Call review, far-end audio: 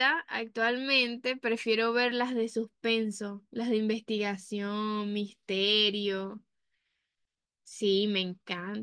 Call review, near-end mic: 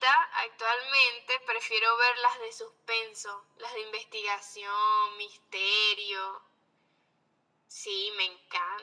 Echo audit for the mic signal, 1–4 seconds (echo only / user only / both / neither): echo only